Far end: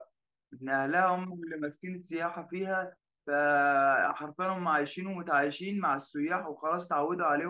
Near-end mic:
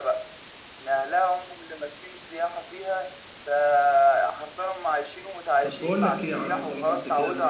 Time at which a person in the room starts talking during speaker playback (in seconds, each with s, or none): 5.6 s